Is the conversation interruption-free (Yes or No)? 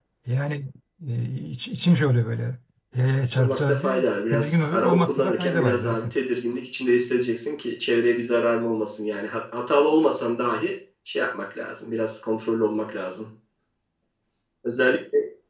No